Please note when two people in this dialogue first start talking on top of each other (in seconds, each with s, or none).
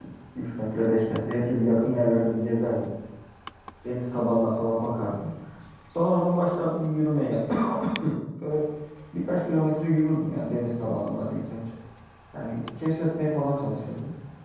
none